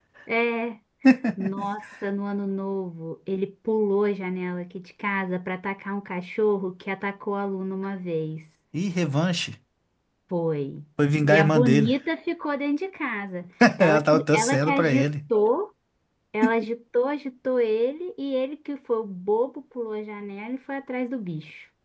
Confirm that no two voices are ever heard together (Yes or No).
No